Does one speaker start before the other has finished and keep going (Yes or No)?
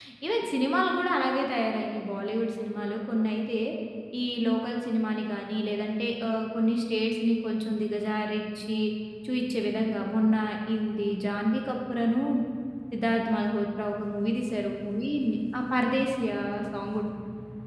No